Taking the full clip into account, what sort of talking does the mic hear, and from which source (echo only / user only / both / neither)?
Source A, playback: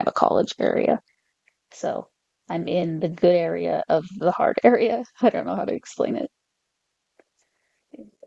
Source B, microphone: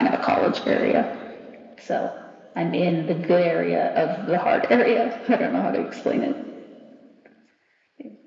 echo only